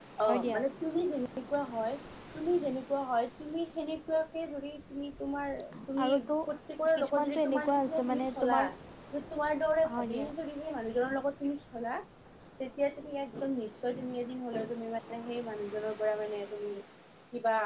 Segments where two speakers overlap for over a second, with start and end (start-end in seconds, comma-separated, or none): 7.0-8.6